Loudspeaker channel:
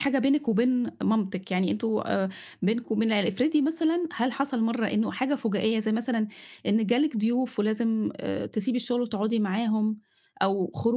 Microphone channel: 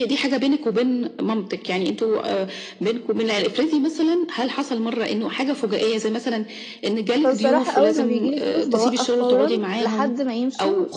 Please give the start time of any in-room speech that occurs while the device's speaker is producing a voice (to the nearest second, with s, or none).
7 s